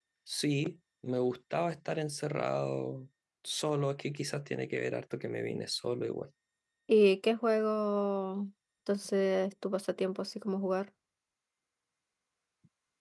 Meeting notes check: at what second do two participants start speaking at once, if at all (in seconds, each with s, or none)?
none